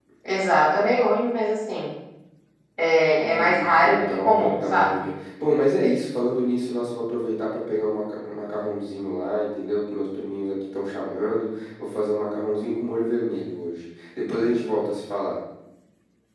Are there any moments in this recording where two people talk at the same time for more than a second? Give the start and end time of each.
3.2-5.1

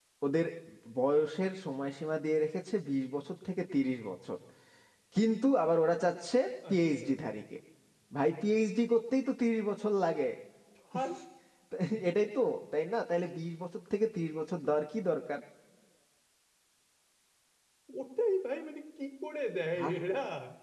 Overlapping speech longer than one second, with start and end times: none

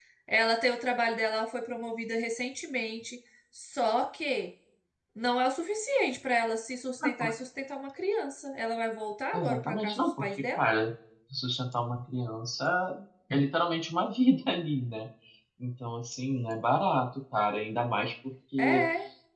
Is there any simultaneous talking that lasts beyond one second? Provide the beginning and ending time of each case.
9.3-10.7

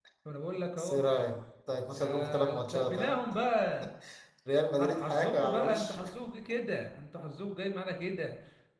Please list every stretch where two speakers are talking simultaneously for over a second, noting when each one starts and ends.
1.9-3.1, 4.7-6.0

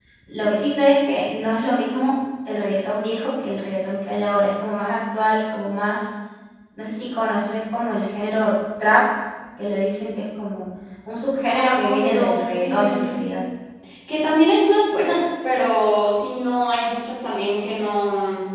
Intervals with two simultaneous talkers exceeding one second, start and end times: 11.5-13.4

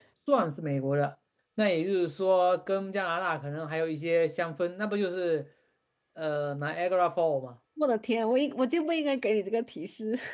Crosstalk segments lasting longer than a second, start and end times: none

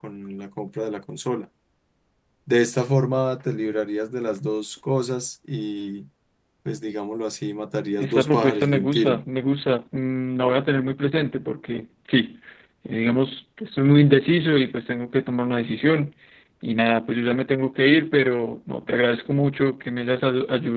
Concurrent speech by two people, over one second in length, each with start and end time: 8.0-9.2

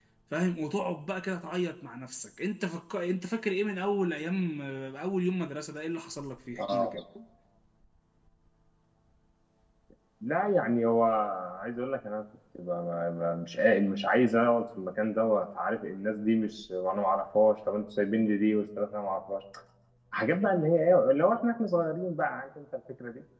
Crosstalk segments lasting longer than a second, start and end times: none

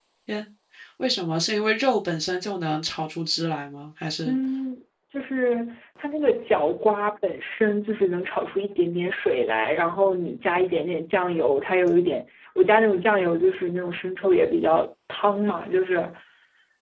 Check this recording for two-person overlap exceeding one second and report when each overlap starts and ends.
none

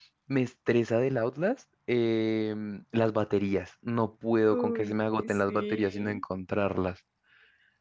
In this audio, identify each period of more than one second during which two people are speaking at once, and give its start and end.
4.5-6.2

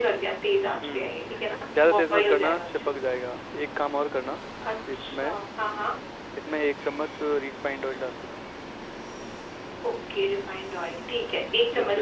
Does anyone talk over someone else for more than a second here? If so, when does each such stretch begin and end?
1.7-3.1

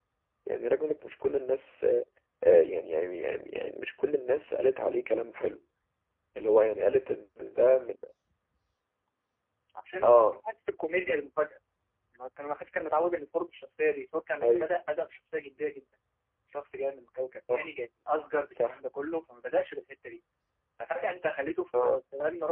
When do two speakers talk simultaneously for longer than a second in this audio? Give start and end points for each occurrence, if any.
none

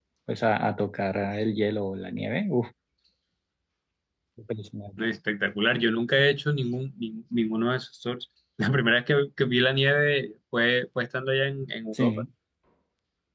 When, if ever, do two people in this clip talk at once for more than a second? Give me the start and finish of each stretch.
none

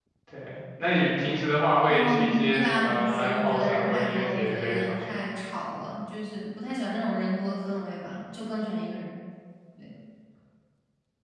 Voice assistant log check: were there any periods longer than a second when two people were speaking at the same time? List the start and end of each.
1.9-5.0

